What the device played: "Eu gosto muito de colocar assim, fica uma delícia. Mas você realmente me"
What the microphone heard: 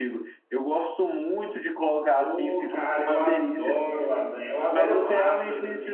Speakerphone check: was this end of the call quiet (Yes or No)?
No